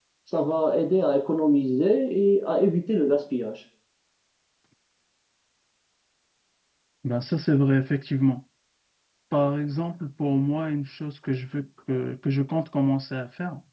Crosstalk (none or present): none